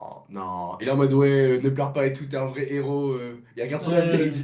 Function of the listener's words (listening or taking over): listening